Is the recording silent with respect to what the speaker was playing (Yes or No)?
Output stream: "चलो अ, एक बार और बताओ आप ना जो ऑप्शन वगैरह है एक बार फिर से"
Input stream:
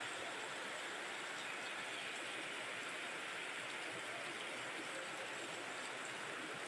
Yes